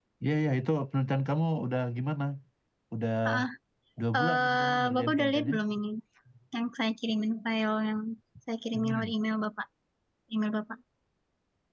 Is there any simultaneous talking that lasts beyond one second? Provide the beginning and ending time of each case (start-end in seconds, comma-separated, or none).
4.1-5.6